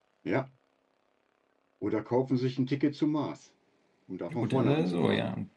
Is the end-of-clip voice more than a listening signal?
Yes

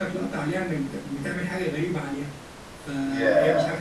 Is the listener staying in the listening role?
Yes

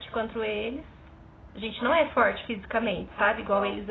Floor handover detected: No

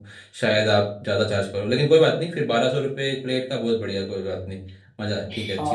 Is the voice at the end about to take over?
Yes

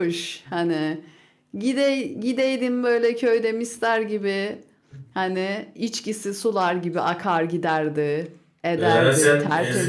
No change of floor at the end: No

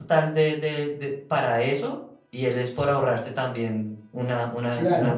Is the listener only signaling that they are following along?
No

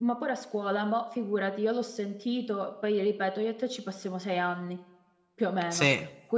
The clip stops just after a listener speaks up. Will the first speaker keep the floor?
Yes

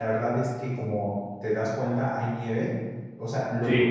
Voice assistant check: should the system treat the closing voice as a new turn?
No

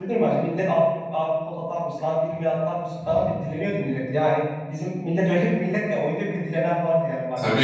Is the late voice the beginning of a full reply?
Yes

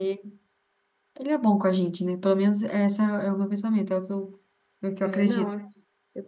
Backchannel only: No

